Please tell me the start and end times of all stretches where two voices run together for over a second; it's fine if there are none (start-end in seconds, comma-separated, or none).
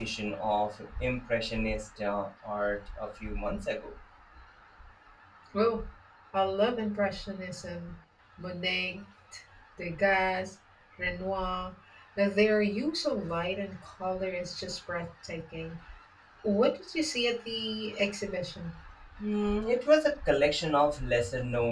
none